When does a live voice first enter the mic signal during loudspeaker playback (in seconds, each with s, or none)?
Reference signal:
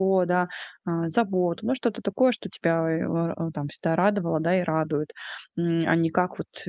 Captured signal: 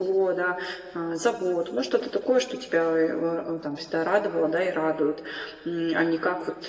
none